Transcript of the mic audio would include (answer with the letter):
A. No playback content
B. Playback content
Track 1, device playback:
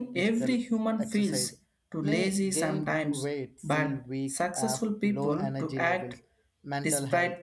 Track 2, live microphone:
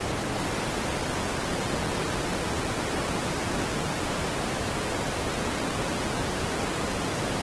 A